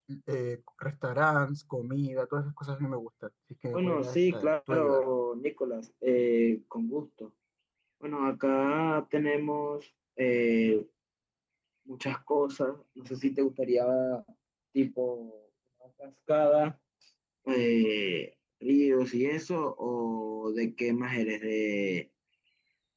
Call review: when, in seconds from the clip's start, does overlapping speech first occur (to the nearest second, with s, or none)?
4 s